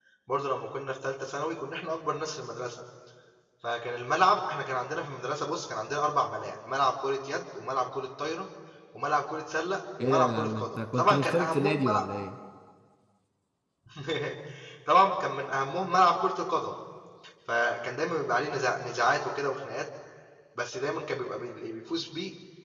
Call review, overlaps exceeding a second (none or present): present